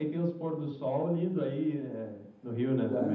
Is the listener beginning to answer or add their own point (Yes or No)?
Yes